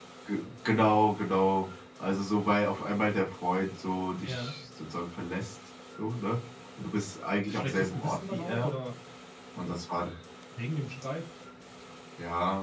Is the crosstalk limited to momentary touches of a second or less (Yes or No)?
No